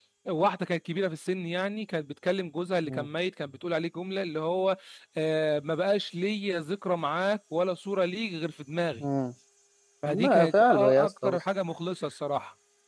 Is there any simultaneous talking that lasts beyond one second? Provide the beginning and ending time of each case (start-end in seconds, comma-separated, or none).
10.1-11.4